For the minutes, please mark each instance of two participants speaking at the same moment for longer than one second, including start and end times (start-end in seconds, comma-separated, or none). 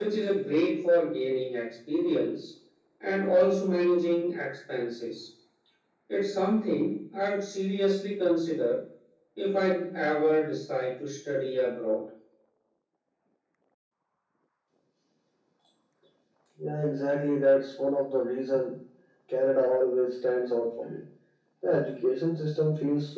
none